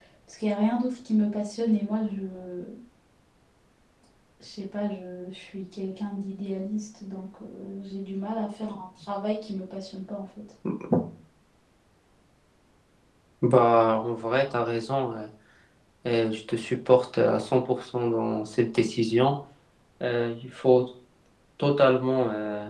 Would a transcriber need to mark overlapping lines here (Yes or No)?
No